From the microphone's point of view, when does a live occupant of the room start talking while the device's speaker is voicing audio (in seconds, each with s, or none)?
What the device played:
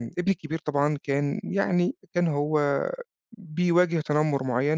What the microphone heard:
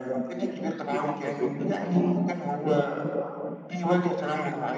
0.9 s